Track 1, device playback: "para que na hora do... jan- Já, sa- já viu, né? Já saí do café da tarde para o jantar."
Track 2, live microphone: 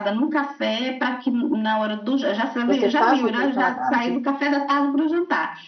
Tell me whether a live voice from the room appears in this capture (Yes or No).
Yes